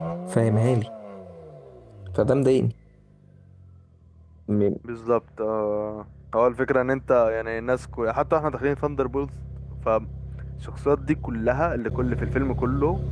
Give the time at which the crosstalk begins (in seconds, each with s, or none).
none